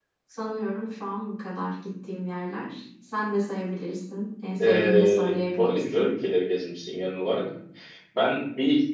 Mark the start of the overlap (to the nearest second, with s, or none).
5 s